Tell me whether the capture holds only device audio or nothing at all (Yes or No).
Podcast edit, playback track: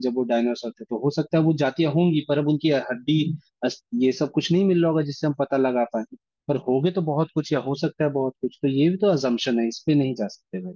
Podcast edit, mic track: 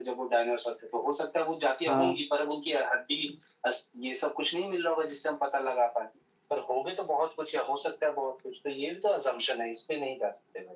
No